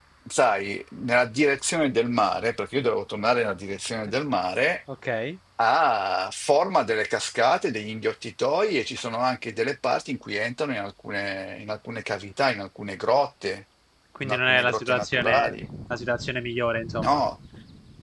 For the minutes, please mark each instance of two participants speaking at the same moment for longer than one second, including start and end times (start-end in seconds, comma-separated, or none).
14.2-15.5